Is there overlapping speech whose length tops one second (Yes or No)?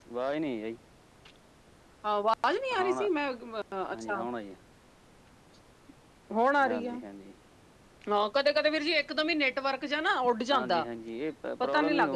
No